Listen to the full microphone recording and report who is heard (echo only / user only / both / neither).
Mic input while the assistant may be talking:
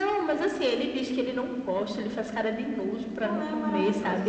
both